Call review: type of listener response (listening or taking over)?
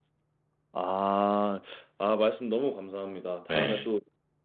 listening